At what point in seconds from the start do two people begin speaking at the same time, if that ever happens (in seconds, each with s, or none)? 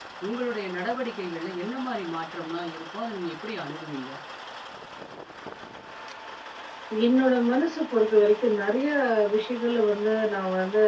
none